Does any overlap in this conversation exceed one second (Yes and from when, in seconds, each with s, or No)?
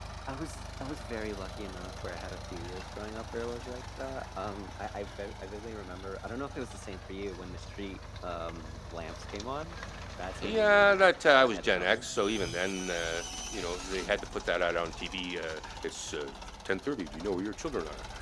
Yes, from 10.4 s